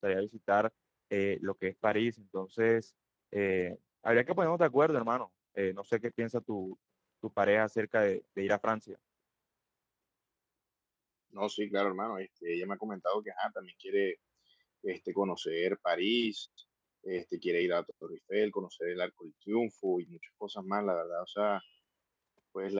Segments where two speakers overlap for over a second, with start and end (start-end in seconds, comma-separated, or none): none